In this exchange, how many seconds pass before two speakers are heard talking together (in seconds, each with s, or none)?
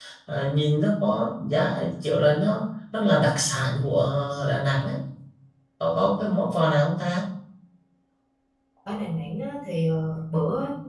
none